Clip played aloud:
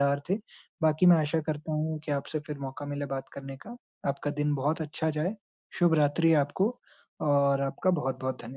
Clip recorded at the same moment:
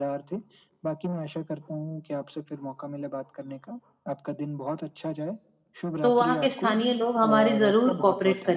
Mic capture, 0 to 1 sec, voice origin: echo only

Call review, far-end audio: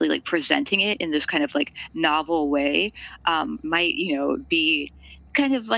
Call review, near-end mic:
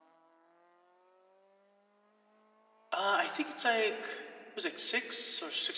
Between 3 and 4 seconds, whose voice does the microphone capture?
user only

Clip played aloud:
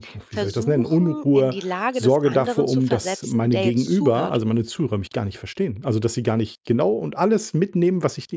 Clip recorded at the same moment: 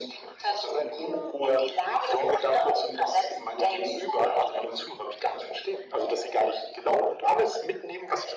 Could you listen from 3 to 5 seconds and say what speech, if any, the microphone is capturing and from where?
echo only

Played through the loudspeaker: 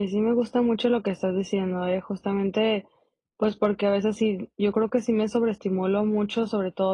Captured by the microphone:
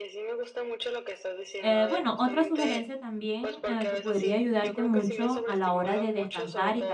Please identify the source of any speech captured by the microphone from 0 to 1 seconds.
echo only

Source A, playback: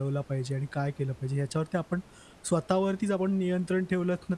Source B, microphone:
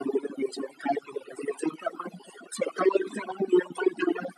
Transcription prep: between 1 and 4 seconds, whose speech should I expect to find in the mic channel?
echo only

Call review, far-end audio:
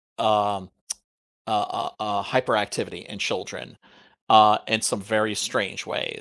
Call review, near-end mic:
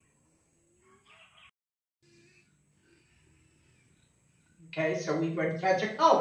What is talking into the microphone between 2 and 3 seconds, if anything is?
neither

